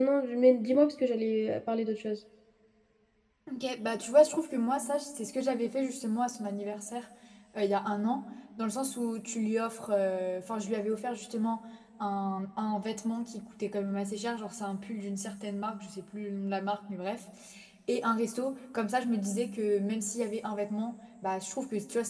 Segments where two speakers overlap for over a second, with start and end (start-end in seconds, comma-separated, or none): none